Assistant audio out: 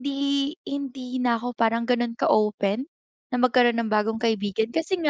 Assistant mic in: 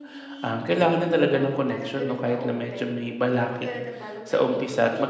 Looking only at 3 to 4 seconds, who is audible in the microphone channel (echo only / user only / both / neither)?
both